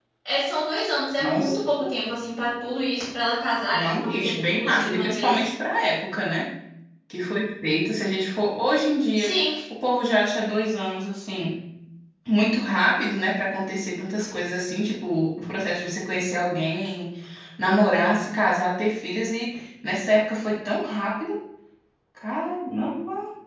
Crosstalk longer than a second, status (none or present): present